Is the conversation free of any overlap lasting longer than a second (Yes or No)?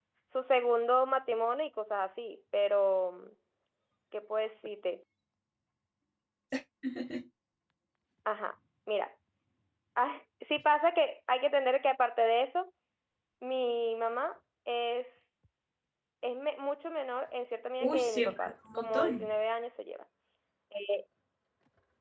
No